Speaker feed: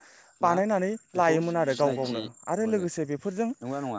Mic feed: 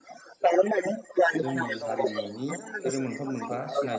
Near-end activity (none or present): present